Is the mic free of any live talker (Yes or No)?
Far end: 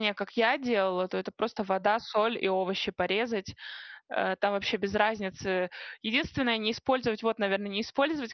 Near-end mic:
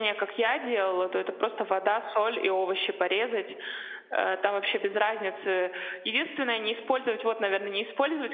Yes